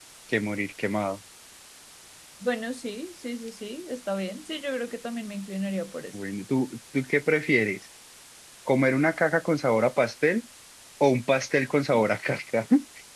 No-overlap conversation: Yes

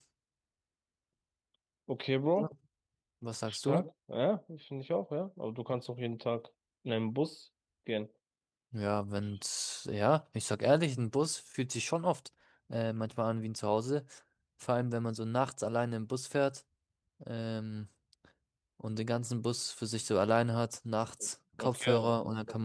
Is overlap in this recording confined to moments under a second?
Yes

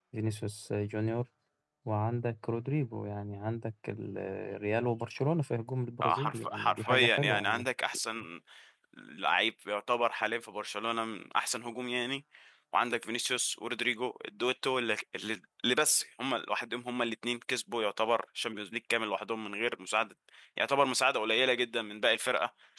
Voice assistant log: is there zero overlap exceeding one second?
No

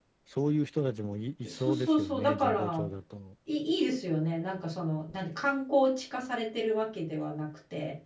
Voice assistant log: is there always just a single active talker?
No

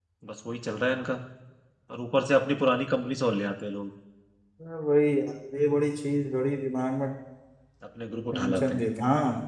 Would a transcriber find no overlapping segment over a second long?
Yes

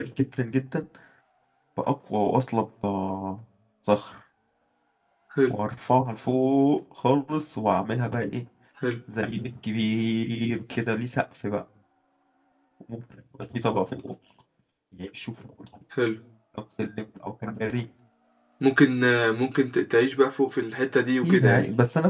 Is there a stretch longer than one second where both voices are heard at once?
No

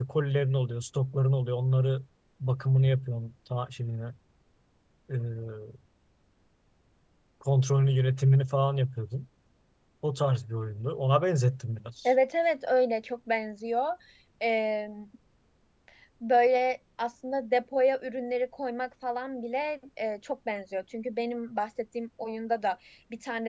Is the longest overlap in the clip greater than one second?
No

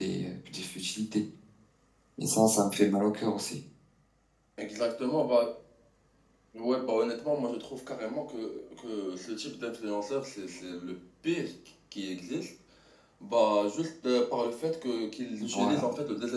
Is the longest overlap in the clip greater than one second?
No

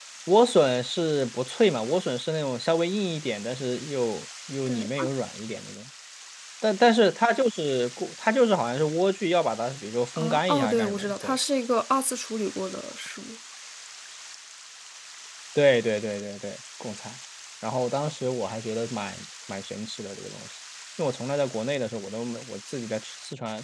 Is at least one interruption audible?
Yes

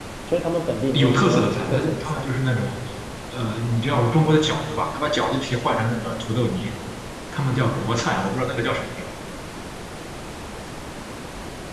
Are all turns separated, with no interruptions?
No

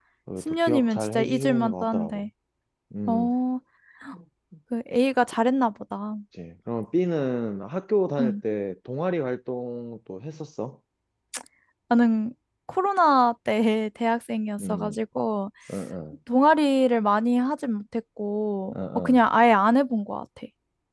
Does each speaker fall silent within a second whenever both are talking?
No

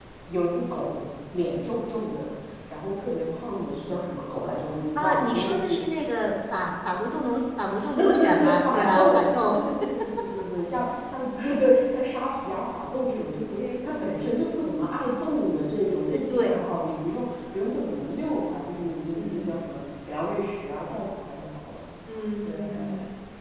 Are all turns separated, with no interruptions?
No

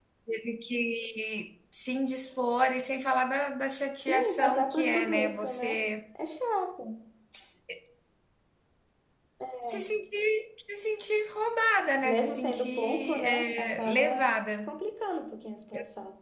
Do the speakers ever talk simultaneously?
Yes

